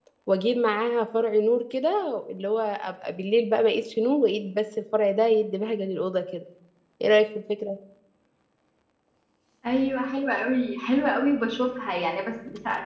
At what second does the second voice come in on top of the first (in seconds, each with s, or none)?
none